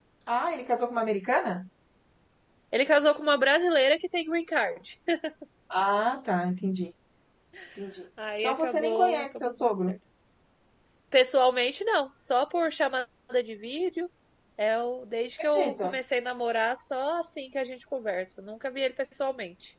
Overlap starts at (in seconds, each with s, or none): 8.4 s